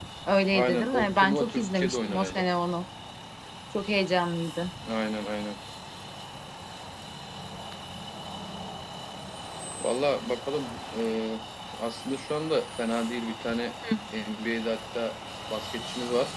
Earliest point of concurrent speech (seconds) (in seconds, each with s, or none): 0.5 s